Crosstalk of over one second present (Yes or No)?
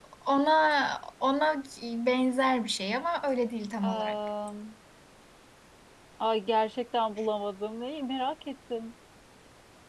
No